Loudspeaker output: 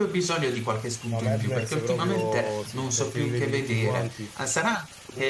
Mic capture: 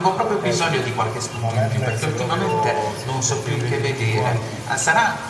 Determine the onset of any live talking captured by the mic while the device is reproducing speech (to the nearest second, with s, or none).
0 s